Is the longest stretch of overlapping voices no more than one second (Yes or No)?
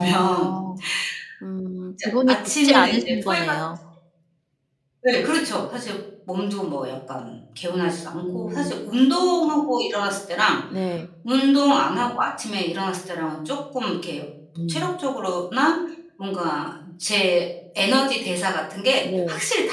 No